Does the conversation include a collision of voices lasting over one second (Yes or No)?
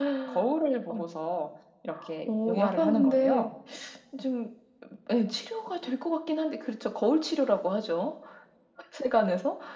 Yes